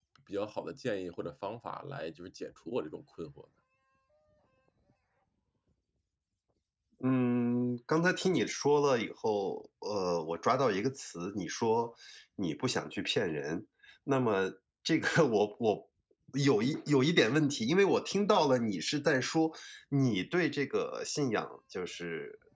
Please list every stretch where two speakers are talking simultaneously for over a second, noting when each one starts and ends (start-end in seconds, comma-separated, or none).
none